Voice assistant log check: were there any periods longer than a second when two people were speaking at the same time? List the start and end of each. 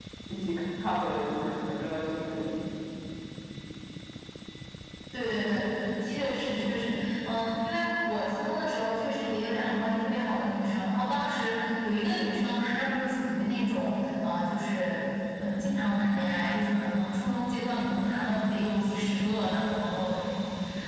none

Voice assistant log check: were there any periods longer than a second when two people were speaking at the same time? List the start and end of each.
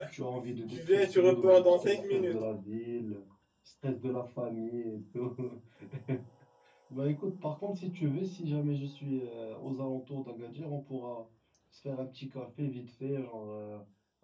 0.7-2.4

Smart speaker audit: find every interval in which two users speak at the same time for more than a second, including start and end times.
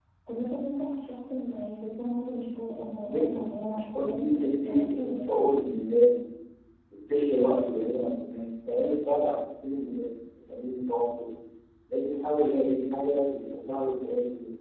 3.0-5.4

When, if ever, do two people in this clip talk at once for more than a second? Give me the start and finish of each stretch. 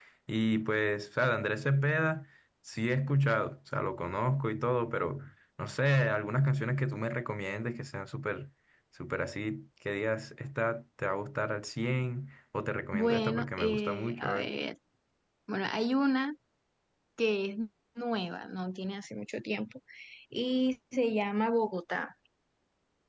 12.9-14.5

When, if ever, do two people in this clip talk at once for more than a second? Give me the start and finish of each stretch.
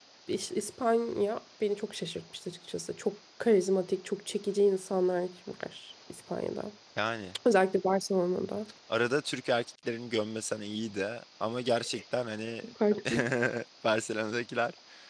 none

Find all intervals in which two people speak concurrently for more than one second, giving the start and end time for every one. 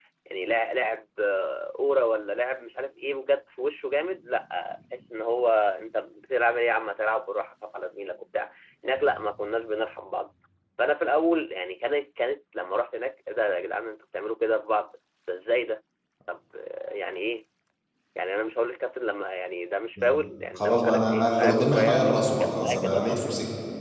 20.6-23.2

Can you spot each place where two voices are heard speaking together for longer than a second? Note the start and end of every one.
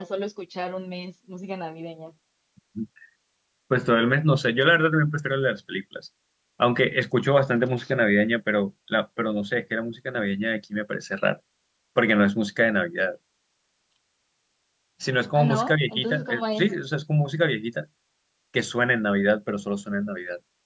15.3-16.7

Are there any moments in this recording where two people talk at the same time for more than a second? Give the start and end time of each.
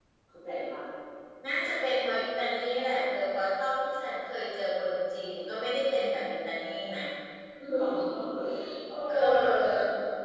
none

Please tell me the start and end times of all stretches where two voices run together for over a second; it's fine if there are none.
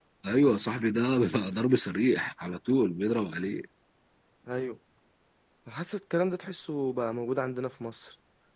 none

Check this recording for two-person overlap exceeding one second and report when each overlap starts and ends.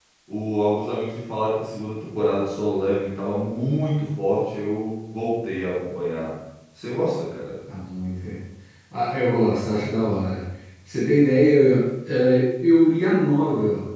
none

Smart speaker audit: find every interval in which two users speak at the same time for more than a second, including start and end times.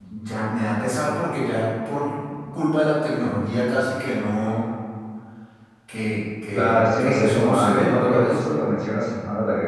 6.5-8.5

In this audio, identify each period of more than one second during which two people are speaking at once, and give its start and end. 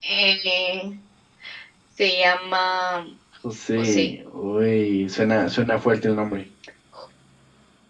none

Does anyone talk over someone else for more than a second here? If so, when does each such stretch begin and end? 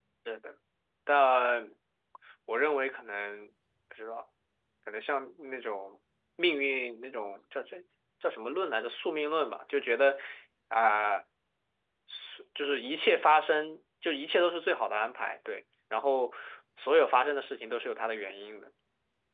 none

